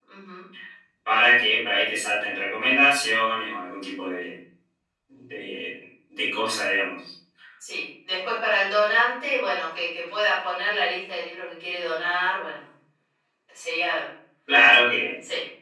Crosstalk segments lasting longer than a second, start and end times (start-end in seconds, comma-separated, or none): none